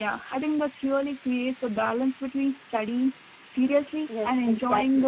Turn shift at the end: Yes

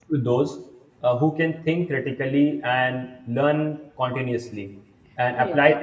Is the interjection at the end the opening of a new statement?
No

